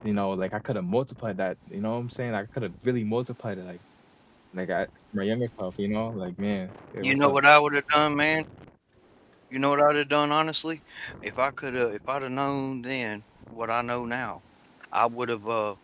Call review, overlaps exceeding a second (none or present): none